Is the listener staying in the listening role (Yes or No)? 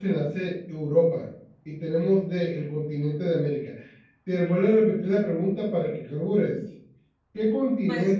Yes